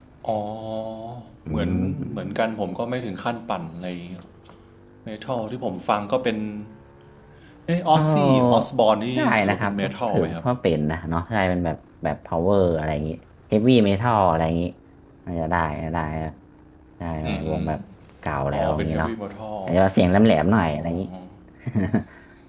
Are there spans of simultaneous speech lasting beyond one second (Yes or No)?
Yes